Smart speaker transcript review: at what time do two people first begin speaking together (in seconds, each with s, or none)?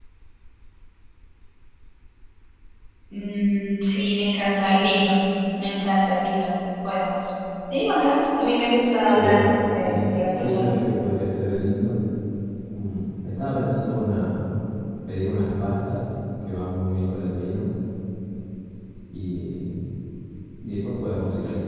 9.1 s